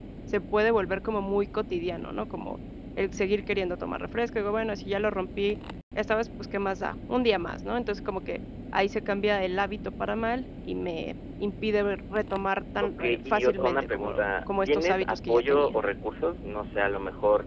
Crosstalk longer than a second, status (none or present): present